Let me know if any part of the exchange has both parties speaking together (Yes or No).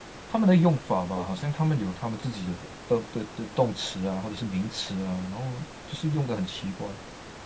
No